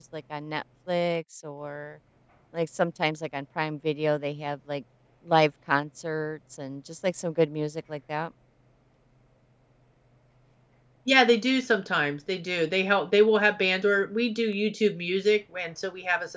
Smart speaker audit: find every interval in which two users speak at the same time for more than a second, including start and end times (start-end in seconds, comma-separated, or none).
none